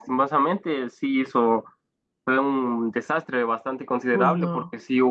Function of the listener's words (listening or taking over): listening